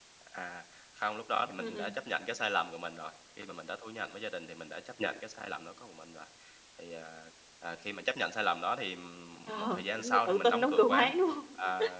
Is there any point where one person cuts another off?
Yes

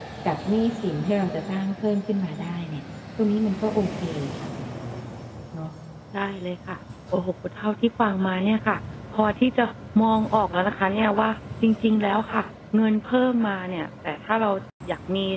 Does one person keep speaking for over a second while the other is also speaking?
No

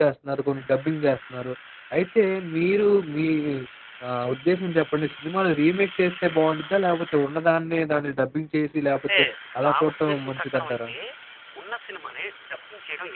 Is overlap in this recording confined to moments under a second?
No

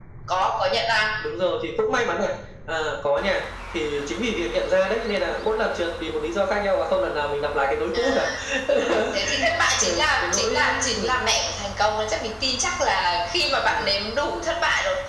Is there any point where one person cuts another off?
Yes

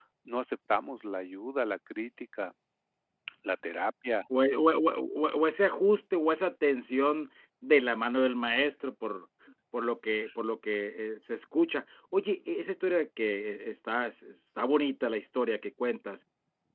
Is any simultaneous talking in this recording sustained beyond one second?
No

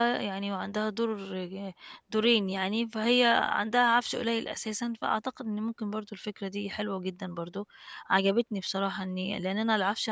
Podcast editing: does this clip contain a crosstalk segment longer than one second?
No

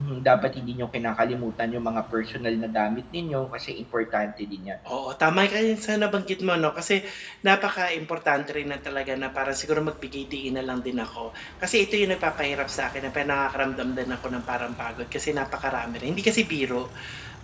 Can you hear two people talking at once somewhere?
No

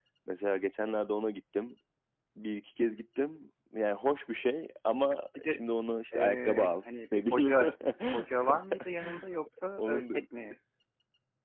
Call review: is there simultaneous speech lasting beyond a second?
Yes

